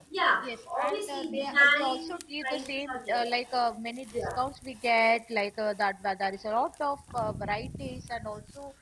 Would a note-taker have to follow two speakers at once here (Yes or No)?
Yes